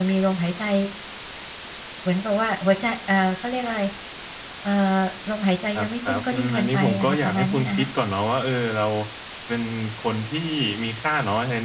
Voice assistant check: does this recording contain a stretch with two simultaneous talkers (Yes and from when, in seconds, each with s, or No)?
Yes, from 5.7 s